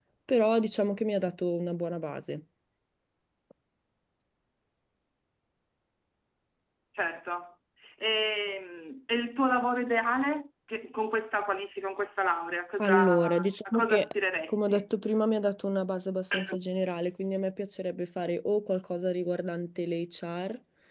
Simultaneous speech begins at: 12.8 s

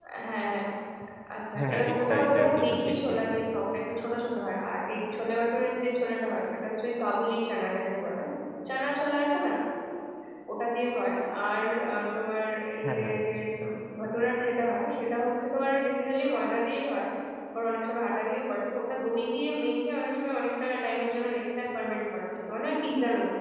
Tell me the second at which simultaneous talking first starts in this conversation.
1.6 s

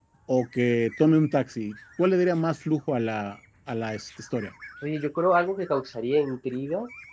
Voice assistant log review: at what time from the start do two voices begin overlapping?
none

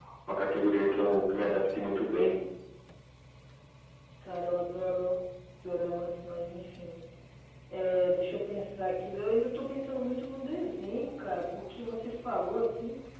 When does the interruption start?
none

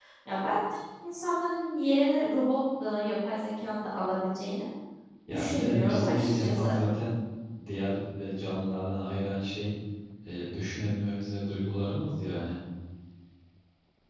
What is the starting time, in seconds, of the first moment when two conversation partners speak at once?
5.3 s

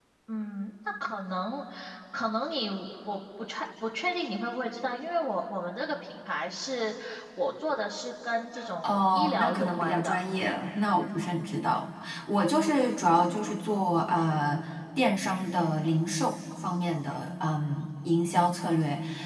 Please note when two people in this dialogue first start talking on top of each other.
8.8 s

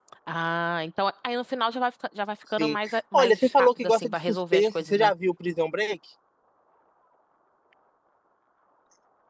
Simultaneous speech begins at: 2.6 s

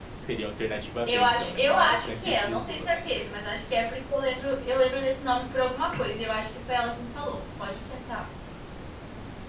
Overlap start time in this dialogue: 1.1 s

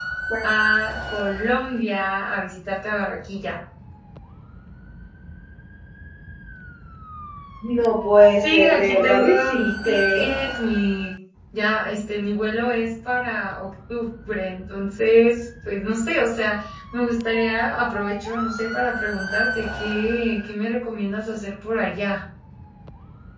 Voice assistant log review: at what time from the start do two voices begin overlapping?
8.4 s

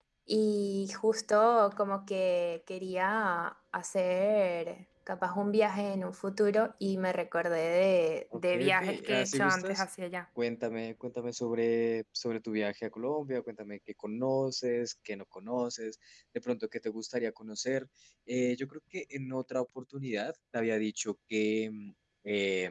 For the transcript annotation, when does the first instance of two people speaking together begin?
8.3 s

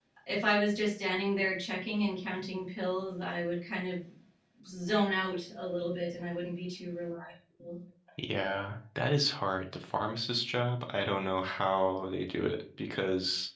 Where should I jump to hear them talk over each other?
none

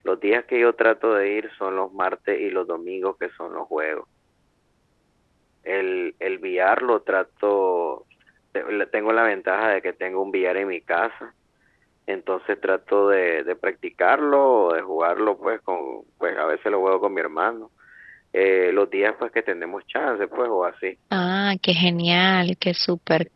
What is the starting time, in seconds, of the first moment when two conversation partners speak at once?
none

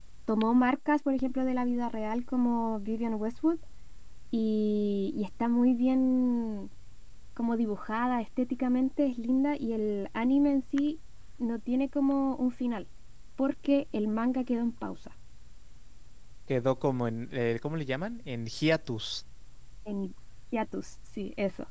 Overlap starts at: none

